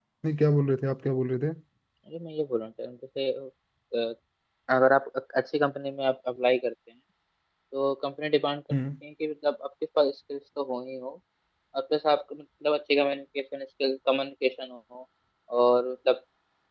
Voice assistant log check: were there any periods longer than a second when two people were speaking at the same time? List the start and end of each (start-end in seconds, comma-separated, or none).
none